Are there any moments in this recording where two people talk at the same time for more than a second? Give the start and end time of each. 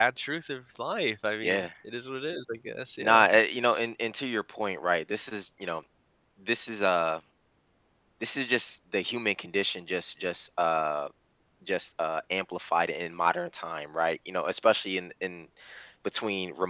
none

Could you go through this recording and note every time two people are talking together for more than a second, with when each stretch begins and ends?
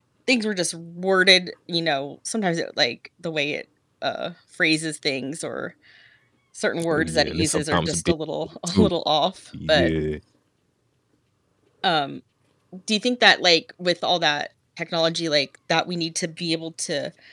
6.9-8.1

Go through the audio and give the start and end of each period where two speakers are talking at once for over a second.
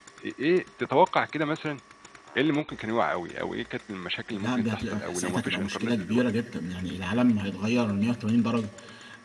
4.3-6.2

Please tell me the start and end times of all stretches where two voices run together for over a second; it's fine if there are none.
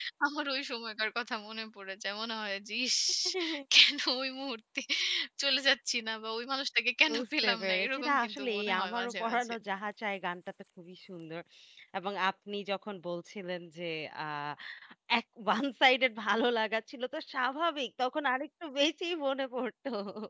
7.1-9.5

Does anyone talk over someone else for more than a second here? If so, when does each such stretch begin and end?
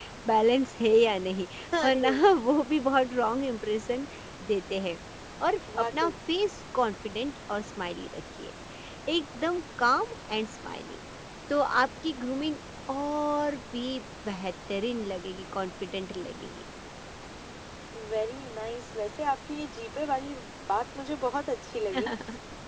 none

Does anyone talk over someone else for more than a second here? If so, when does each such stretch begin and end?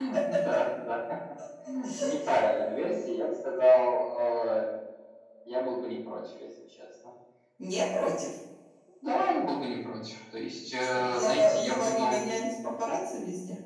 10.9-12.2

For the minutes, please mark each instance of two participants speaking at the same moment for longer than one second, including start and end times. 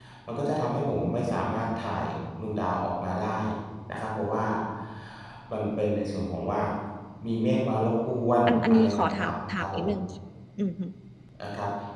8.5-9.9

